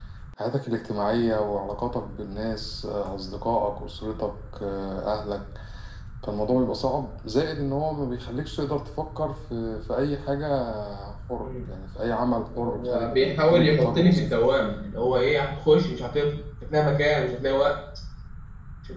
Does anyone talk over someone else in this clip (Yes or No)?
Yes